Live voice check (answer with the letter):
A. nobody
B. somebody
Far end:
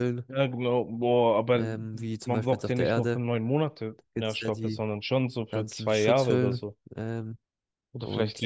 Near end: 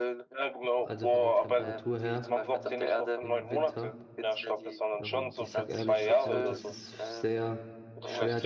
B